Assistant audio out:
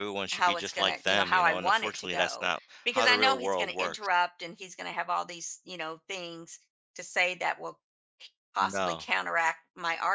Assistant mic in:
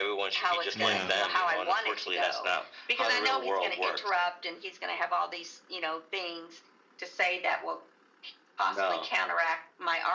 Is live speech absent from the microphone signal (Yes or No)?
No